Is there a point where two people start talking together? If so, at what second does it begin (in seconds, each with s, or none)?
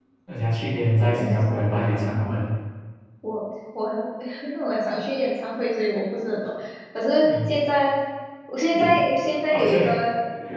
1.0 s